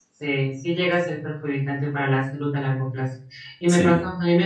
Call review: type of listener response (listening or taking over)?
listening